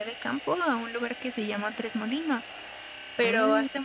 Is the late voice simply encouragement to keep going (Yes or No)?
Yes